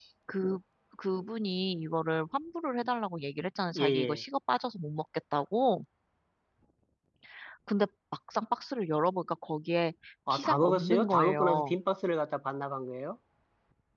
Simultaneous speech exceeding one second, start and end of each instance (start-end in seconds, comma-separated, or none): 10.3-11.8